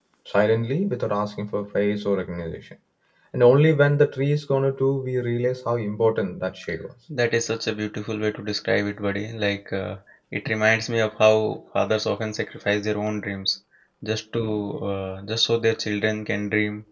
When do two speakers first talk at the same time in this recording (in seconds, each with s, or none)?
none